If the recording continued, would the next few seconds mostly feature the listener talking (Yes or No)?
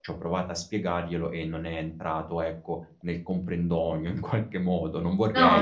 Yes